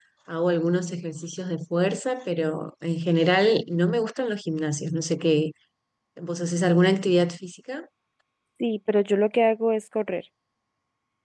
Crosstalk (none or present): none